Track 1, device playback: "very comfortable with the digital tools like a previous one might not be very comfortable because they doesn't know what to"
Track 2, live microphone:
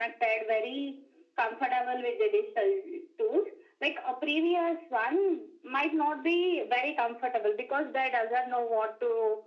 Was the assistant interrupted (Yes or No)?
No